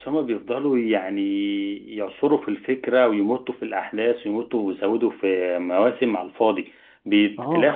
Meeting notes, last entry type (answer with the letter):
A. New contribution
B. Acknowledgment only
B